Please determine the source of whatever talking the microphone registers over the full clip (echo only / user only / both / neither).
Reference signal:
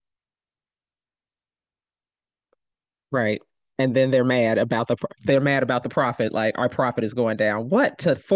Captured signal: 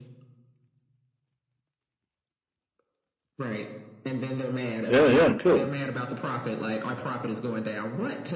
both